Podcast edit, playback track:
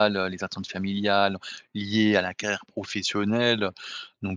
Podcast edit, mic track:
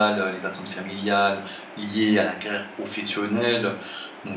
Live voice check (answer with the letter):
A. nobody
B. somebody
A